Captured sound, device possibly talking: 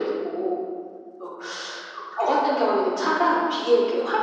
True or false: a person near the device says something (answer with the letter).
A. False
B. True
A